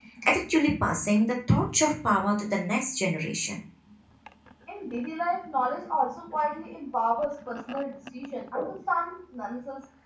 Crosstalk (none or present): none